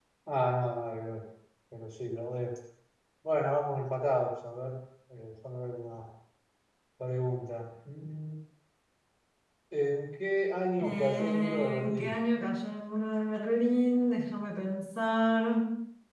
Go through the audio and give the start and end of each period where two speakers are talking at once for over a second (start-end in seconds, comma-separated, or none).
10.8-12.2